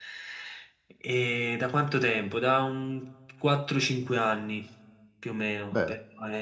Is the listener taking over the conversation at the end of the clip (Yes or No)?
No